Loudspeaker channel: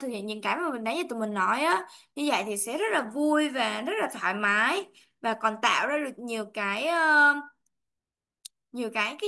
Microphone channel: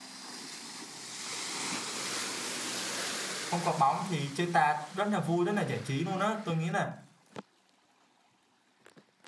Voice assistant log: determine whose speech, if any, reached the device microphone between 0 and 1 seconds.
neither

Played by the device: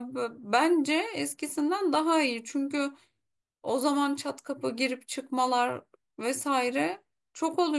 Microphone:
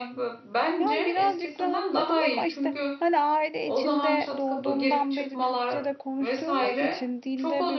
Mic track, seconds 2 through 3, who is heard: both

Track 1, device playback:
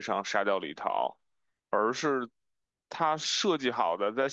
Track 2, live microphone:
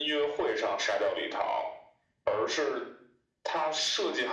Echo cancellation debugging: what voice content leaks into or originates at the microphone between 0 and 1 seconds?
echo only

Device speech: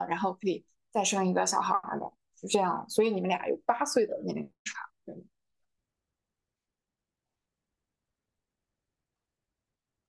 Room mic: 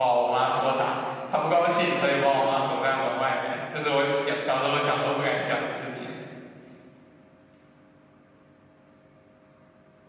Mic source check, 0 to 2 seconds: user only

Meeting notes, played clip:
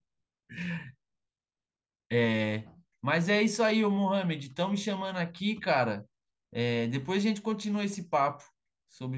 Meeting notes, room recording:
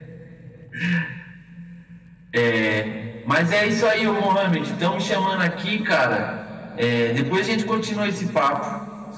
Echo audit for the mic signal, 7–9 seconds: echo only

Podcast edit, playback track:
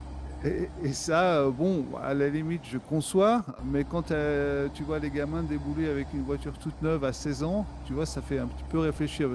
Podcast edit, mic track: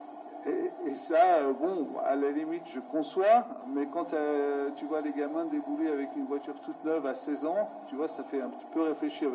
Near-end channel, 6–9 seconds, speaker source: echo only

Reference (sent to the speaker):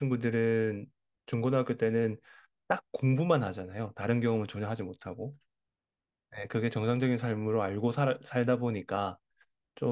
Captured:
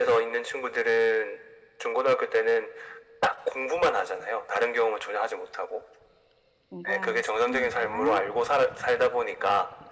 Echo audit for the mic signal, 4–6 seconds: echo only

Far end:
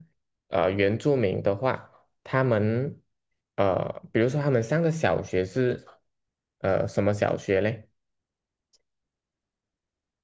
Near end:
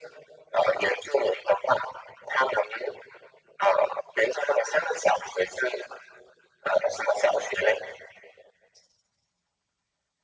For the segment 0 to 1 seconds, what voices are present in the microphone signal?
echo only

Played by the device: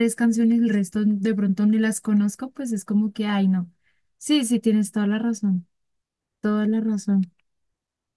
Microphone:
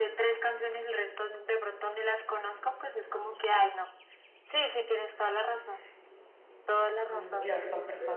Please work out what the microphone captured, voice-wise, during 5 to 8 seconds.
both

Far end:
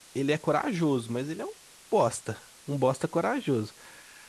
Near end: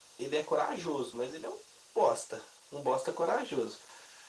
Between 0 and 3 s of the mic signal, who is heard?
echo only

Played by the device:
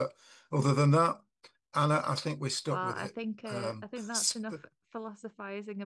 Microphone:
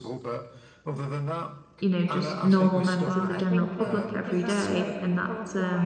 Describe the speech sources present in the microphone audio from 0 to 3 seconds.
both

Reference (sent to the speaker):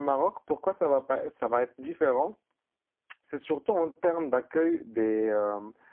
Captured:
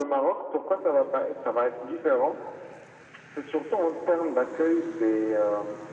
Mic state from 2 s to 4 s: echo only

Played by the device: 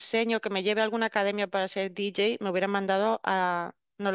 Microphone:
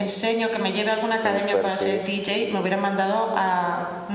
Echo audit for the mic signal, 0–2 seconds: both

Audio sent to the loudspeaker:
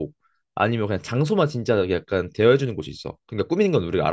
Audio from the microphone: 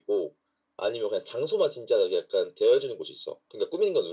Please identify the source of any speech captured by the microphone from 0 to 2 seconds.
echo only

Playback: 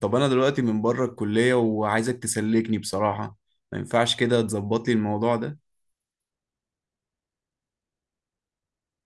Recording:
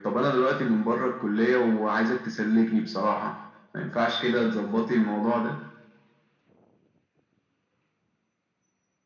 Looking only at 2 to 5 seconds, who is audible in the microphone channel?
echo only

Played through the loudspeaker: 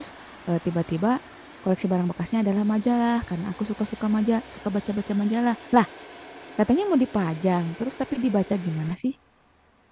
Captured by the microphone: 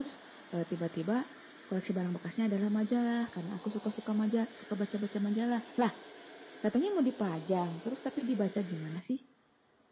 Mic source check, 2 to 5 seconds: echo only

